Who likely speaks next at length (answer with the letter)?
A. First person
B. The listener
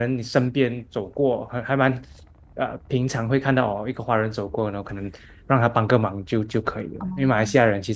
A